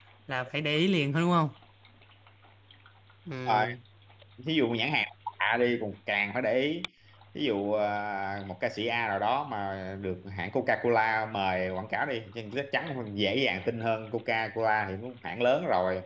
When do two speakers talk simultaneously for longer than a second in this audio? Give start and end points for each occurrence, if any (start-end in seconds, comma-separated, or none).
none